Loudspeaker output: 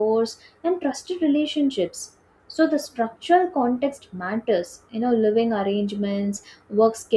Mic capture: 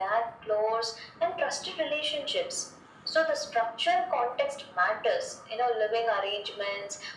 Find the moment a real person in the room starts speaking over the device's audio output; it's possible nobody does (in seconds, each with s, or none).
none